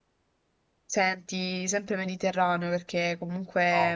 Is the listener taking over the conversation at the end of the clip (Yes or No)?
No